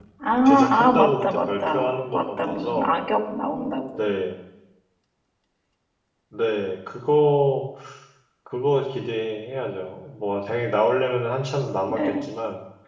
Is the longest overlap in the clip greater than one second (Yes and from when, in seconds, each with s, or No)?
Yes, from 0.7 s